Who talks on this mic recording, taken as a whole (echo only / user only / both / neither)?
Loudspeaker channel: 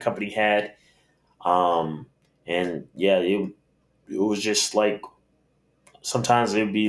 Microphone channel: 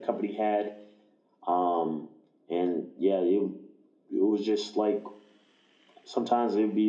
echo only